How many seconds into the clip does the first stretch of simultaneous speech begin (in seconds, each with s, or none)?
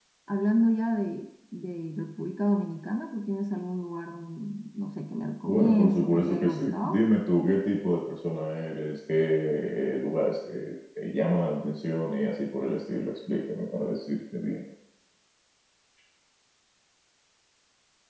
5.5 s